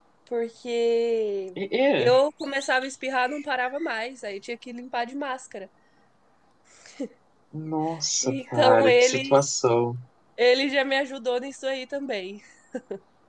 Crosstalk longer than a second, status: present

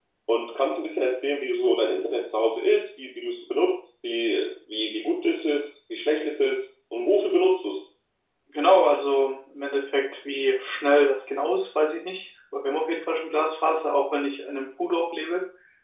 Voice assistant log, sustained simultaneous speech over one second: none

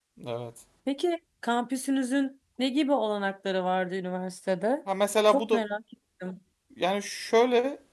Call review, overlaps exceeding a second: none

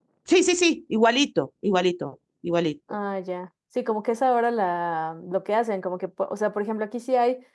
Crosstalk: none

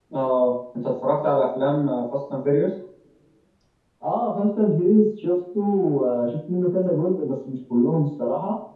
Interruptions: none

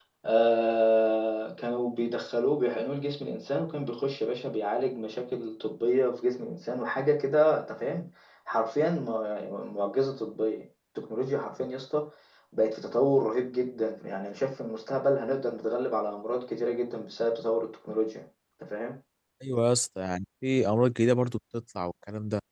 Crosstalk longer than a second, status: none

